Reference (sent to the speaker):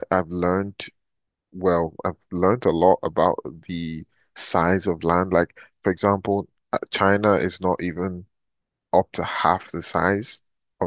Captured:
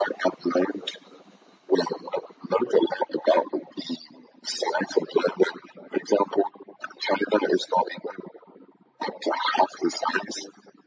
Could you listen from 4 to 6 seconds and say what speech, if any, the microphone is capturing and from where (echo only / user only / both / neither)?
echo only